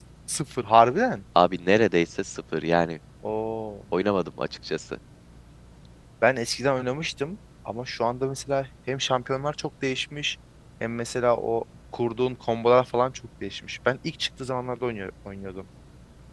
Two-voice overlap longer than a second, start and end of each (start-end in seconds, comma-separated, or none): none